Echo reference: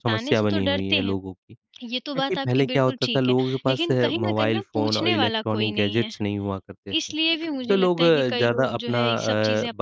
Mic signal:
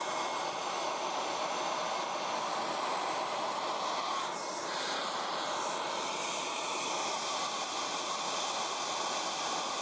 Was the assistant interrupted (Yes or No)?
No